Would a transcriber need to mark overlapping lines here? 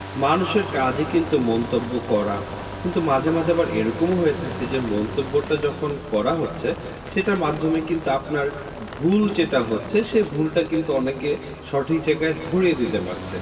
No

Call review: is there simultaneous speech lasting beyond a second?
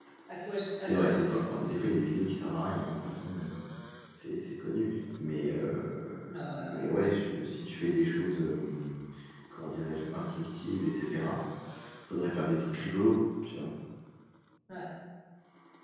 Yes, from 0.8 s

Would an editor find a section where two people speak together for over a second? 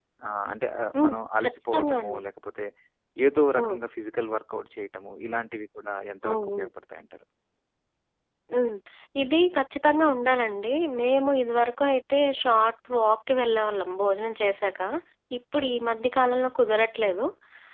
Yes, from 1.0 s

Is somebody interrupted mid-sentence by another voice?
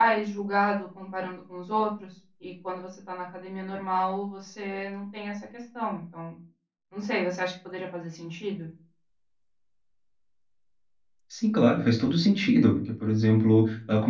No

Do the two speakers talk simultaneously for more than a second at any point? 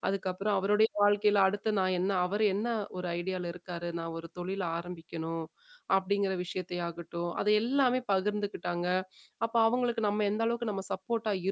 No

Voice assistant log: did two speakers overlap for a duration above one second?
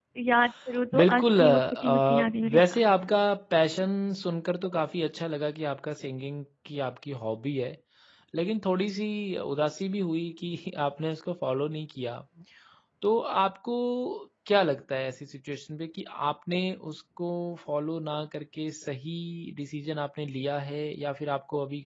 Yes, from 1.0 s

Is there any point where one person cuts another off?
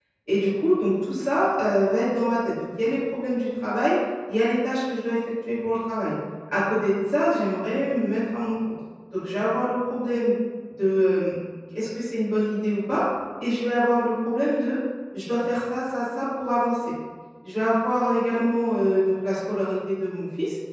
No

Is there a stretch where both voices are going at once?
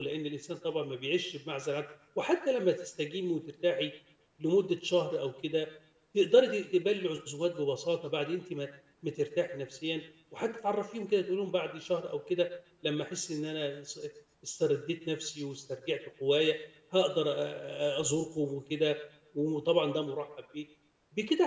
No

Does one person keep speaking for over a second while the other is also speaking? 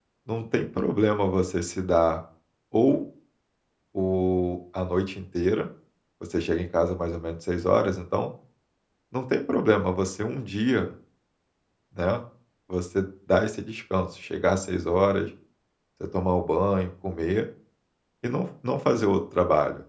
No

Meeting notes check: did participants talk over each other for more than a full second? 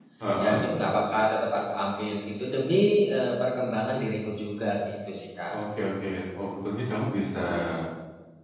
No

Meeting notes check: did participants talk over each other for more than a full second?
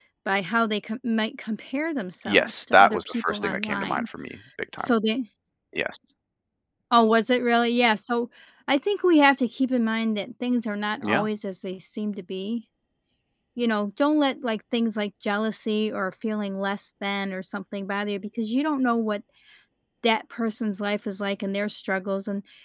Yes, from 2.2 s

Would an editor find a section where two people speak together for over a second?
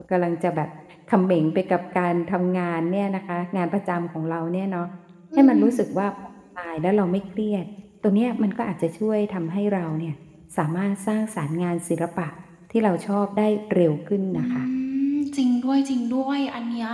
No

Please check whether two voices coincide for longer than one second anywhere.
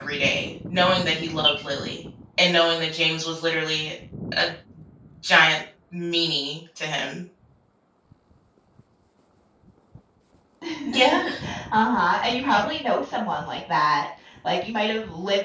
No

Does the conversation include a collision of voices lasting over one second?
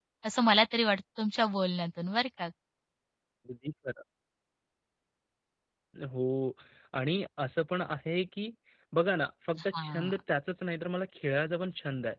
No

